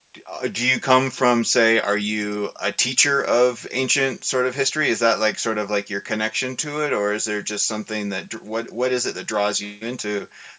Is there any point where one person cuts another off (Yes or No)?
No